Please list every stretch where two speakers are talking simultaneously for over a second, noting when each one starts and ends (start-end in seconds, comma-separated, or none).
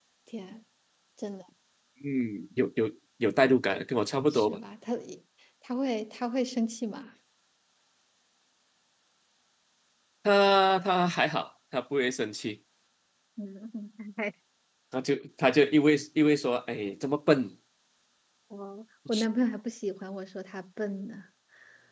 none